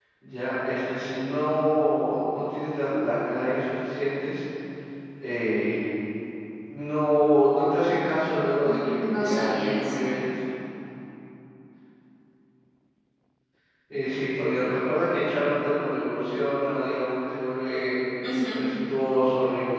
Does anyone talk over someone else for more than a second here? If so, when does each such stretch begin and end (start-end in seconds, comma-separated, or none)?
8.6-10.1